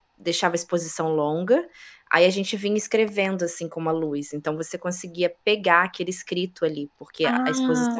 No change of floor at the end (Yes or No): No